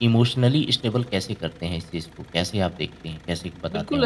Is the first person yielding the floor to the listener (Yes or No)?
Yes